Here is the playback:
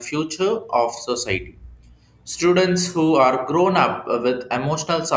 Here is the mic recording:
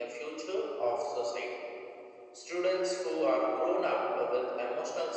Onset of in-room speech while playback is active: none

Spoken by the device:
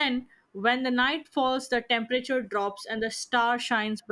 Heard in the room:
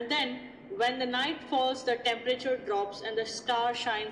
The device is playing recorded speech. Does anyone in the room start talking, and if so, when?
none

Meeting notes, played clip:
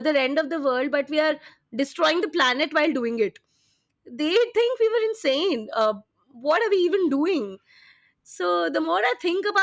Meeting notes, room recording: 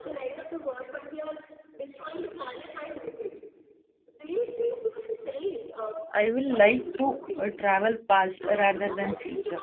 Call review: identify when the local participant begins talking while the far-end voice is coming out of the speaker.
6.2 s

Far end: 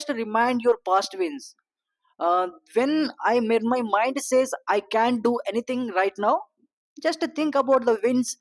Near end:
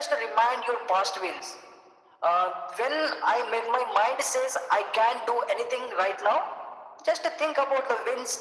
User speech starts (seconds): none

